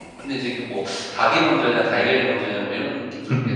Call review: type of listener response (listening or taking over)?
taking over